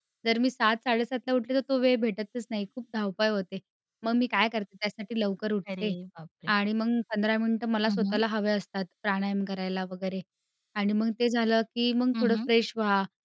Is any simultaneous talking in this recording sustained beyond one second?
No

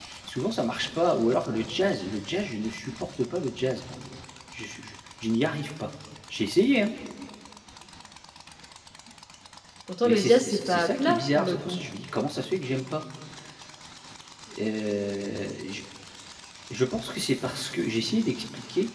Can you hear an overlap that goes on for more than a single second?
Yes, from 10.0 s

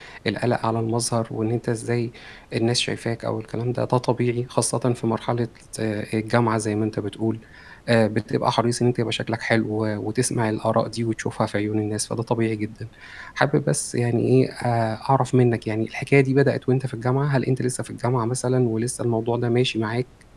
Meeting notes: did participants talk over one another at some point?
No

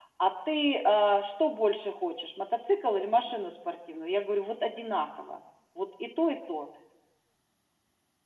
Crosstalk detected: No

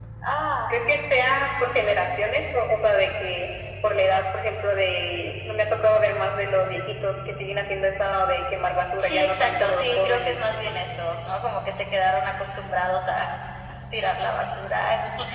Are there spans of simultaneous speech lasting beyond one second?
Yes, from 9.0 s

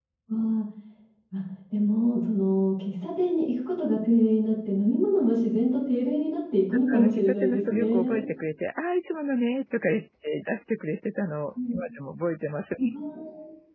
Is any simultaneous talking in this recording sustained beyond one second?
Yes, from 6.9 s

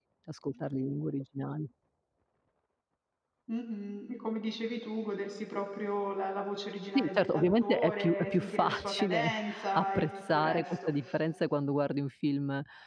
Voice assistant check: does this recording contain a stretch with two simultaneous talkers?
Yes, from 7.0 s

